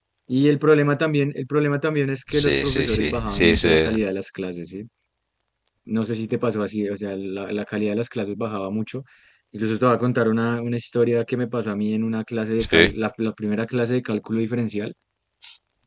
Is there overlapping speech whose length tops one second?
Yes, from 2.3 s

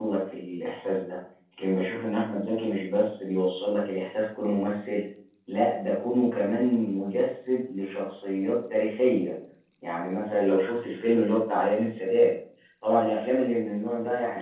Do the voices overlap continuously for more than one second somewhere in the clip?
No

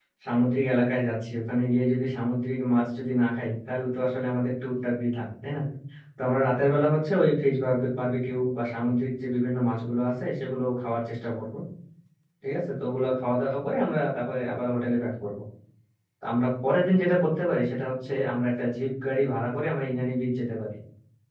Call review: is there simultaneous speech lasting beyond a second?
No

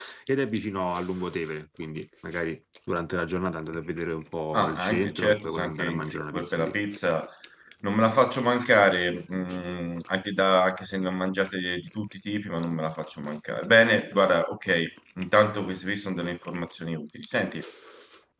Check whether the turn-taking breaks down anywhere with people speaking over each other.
Yes, from 4.5 s

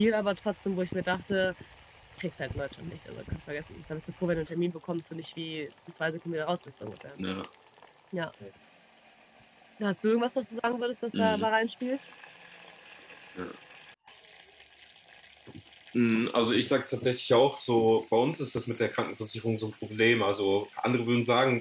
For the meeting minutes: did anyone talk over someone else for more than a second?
No

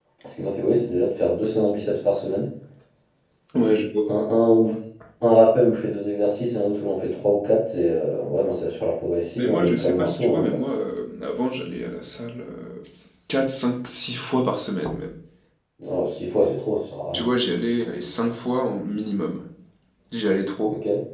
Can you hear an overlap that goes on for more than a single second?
Yes, from 9.4 s

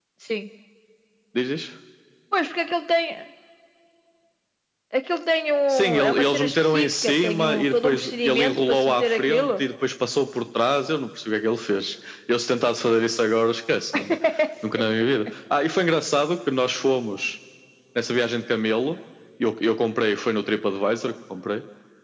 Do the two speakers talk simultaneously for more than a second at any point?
Yes, from 5.7 s

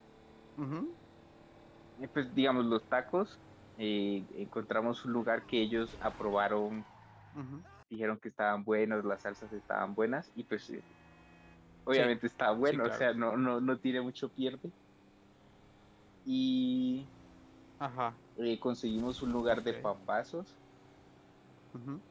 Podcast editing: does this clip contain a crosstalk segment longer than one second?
No

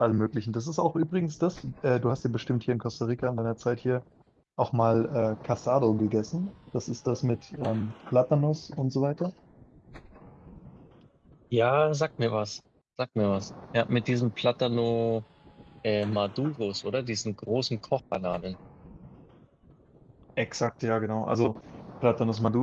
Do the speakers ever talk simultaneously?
No

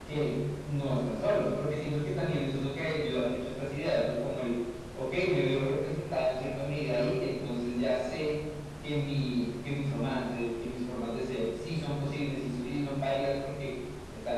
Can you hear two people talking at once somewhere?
No

